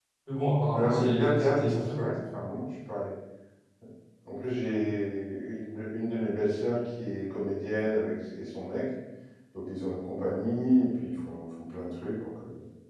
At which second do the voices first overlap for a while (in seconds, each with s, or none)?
0.7 s